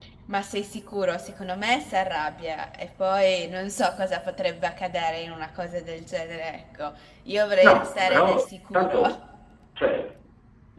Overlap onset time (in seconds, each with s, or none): 7.6 s